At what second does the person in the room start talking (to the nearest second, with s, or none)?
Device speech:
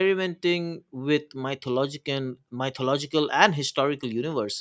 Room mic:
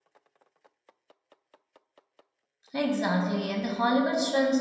3 s